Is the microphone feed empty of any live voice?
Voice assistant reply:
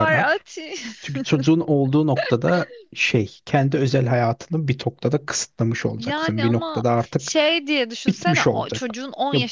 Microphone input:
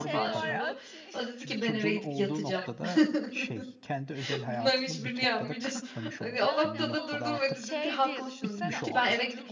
No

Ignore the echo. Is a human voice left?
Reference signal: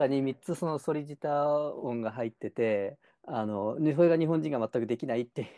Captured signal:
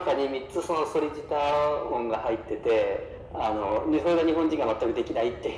No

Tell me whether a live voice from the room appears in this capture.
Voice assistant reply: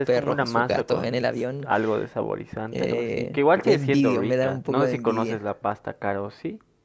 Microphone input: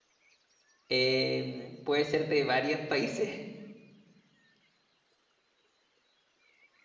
Yes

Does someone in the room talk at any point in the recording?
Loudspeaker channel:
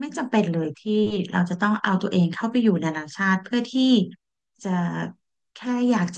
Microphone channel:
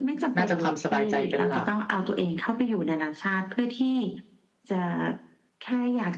Yes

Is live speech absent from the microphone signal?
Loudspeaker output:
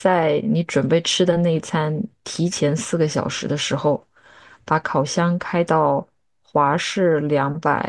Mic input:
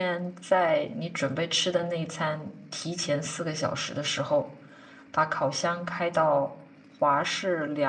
Yes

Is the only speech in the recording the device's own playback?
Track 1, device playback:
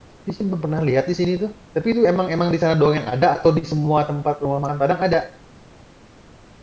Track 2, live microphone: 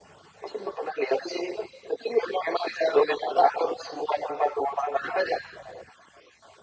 Yes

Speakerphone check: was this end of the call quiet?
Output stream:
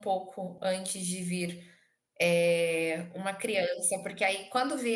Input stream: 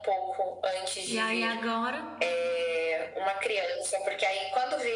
No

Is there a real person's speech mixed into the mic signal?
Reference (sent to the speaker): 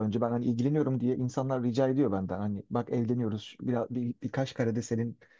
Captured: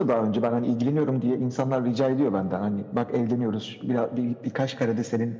No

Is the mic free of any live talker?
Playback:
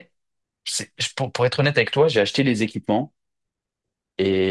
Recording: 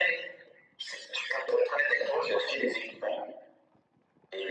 Yes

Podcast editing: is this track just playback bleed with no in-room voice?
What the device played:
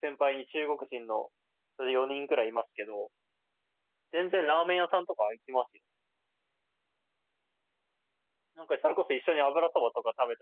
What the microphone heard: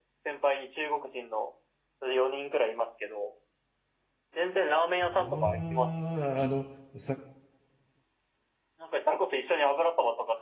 No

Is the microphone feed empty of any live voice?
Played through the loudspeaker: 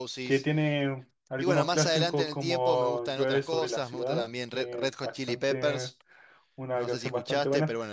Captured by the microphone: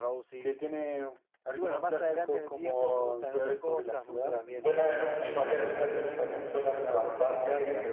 No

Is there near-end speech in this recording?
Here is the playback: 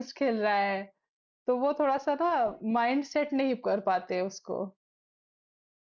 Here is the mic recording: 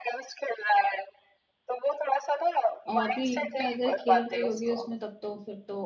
Yes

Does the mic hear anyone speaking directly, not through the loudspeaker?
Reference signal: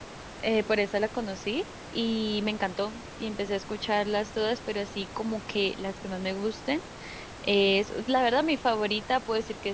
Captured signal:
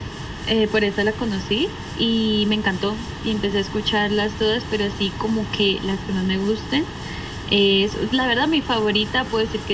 No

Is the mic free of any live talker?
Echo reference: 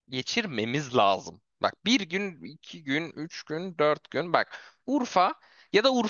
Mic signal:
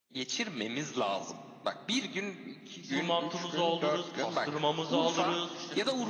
No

